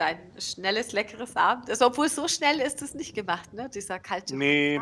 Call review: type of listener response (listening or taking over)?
taking over